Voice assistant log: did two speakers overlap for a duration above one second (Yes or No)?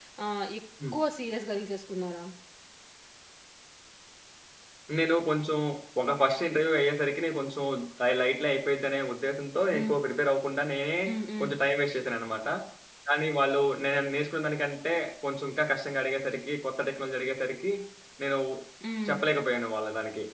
No